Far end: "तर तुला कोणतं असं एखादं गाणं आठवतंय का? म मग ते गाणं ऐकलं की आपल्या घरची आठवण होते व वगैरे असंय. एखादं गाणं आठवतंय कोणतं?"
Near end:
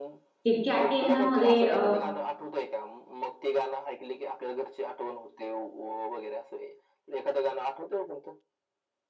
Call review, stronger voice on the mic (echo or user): user